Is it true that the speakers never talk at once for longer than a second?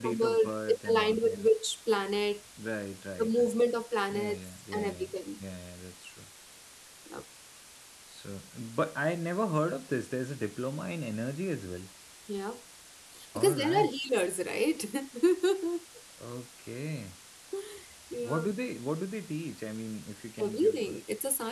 No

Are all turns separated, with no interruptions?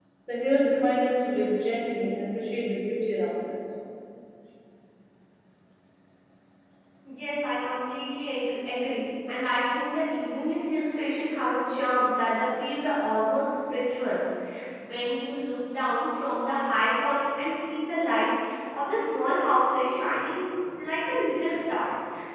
Yes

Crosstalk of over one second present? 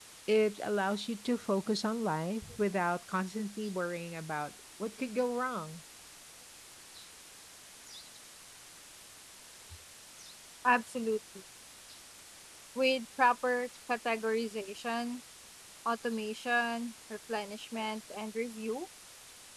No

